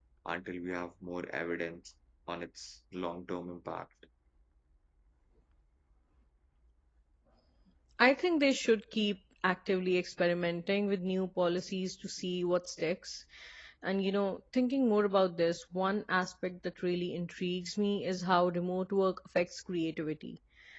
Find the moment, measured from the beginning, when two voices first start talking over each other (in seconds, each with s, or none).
none